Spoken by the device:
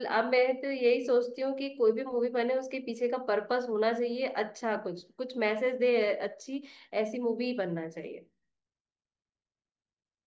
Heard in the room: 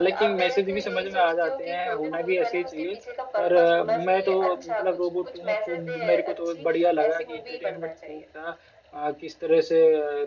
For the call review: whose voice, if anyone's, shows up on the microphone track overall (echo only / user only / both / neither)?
both